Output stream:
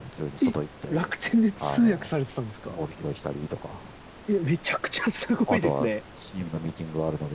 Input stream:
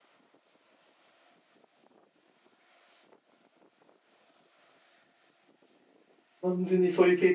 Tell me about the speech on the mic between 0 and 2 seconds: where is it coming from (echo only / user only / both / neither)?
neither